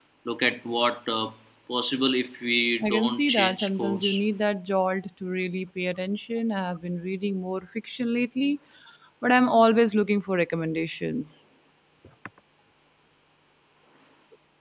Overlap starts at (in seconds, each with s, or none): 2.8 s